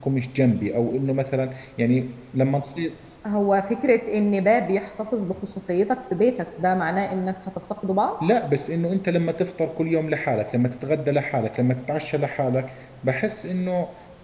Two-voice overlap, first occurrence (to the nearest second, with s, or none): none